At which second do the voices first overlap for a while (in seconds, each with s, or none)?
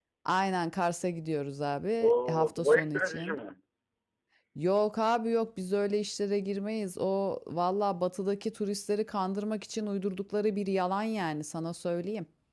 2.0 s